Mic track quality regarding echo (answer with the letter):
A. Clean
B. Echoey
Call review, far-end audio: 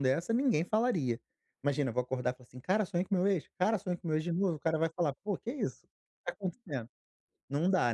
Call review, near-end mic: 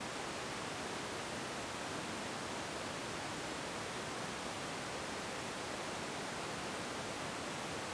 A